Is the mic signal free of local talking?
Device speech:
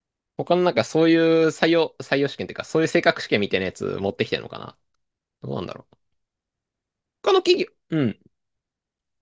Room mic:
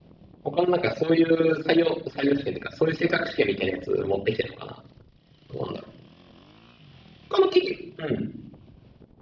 Yes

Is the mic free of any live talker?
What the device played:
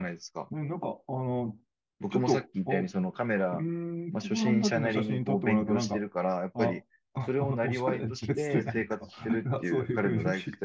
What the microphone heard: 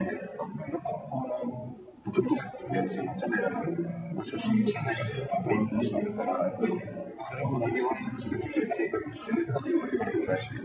Yes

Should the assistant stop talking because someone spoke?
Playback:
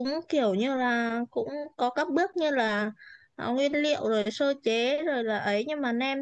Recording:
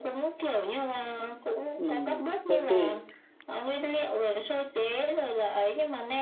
Yes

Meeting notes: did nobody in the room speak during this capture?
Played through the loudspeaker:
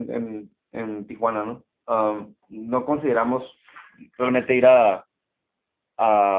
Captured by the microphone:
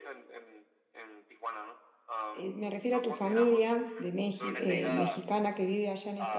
No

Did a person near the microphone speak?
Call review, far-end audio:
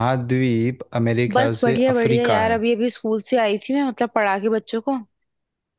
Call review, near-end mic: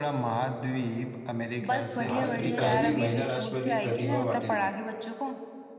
Yes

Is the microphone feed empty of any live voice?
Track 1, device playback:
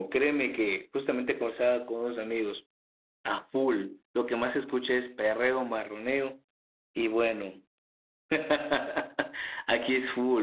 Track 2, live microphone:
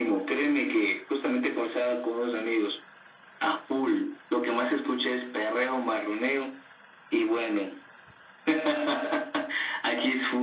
Yes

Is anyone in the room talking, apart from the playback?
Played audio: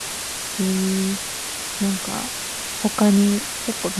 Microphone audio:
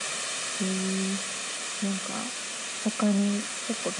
No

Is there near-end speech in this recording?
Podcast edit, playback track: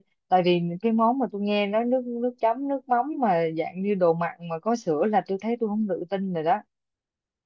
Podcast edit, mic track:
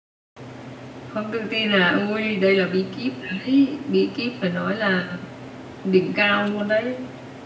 Yes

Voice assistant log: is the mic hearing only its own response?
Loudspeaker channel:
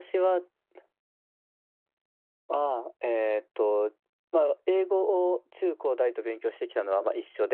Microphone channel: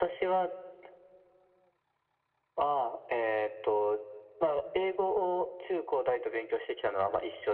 Yes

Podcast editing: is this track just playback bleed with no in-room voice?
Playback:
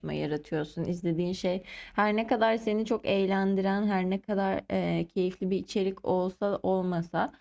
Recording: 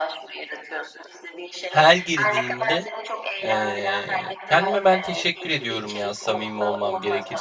No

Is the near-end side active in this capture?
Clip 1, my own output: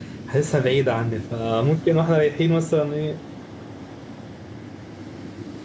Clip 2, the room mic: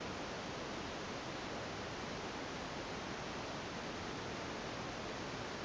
No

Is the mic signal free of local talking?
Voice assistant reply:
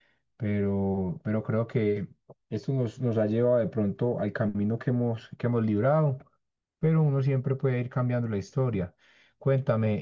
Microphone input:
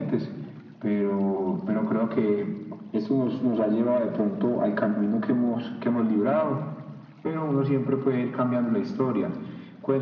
Yes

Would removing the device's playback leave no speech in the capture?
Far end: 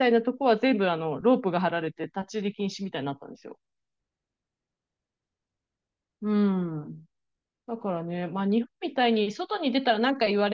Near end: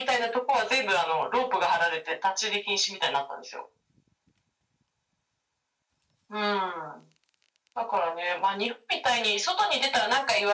Yes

